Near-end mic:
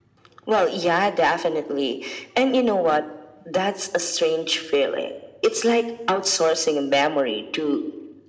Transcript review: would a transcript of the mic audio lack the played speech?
No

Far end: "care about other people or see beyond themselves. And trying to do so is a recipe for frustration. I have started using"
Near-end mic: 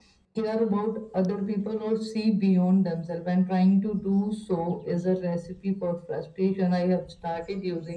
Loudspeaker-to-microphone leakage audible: Yes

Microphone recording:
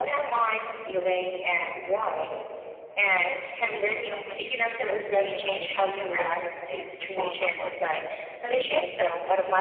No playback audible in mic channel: No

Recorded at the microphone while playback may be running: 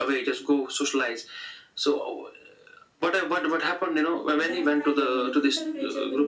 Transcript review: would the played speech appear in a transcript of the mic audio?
Yes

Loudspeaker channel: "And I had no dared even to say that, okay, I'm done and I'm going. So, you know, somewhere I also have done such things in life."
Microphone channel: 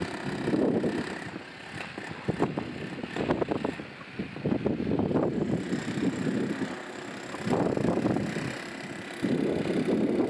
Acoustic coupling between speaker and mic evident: No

